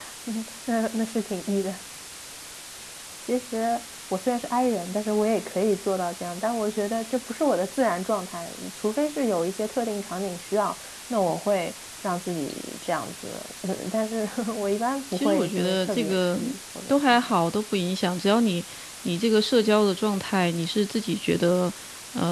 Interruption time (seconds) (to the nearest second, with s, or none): 15 s